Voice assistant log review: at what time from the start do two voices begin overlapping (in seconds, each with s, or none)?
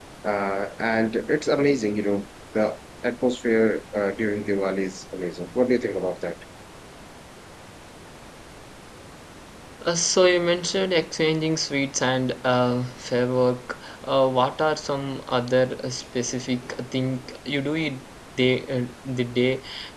none